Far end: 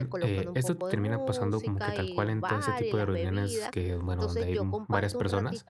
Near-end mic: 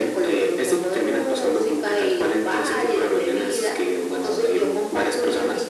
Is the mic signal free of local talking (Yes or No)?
Yes